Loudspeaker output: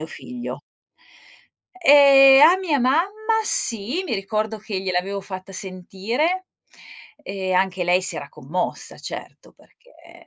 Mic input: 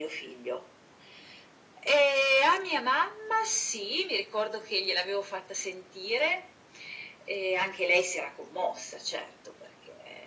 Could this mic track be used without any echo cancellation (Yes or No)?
No